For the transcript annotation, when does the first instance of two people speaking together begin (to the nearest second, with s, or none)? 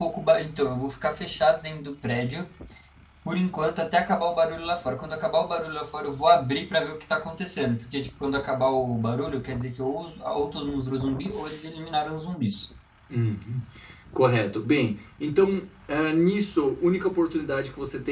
none